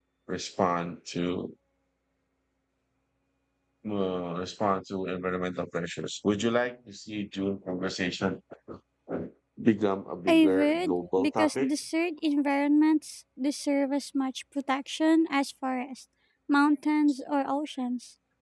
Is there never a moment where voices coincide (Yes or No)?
No